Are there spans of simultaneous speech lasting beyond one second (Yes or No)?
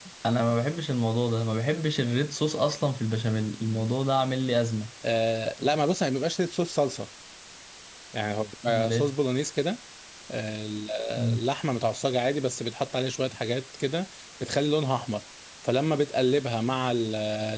No